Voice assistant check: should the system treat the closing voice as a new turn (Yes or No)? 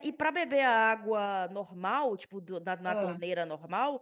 No